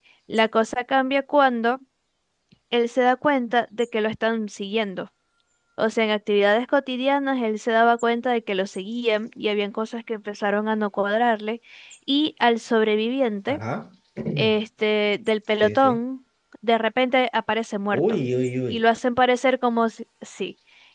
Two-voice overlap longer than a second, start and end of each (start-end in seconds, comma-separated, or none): none